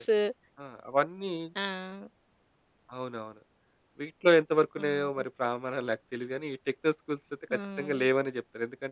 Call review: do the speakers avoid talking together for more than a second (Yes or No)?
Yes